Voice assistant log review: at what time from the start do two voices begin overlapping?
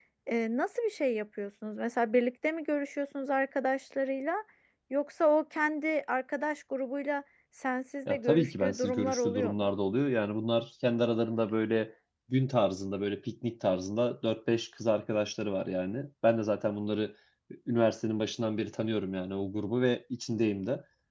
8.1 s

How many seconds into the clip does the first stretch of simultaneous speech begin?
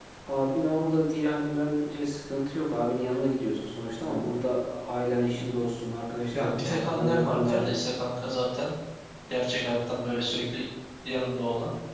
6.3 s

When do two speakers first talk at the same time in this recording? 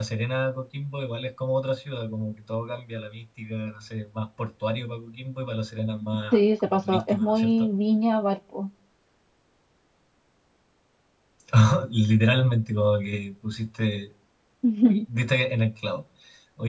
6.3 s

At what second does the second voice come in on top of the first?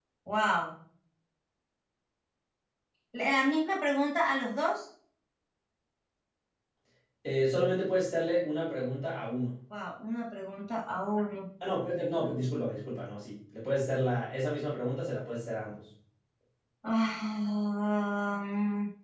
none

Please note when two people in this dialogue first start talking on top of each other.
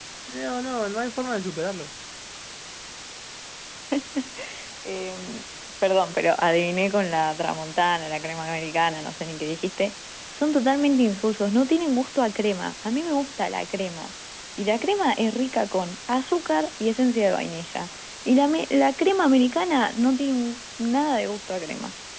none

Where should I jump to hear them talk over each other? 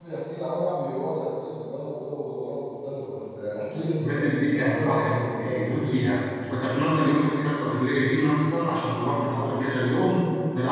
4.0 s

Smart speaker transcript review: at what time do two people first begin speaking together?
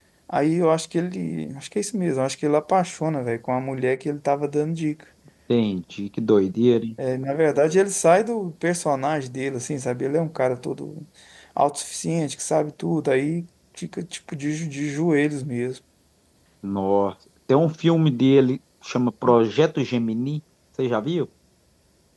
none

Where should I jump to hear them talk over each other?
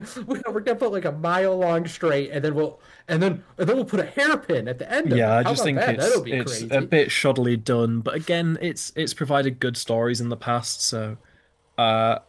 5.0 s

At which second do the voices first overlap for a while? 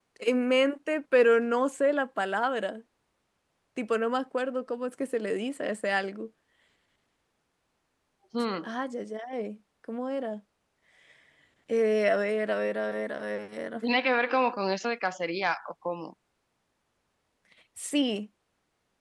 none

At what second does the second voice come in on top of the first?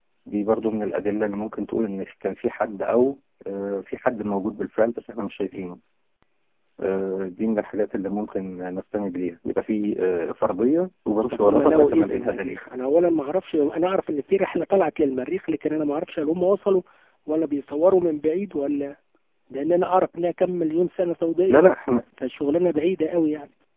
11.3 s

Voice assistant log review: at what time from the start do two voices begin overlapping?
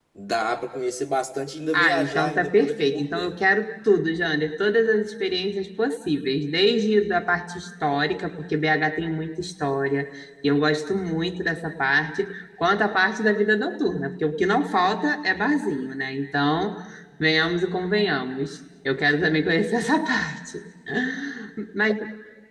1.7 s

